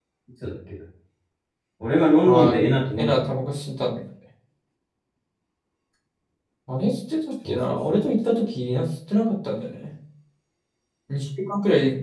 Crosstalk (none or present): present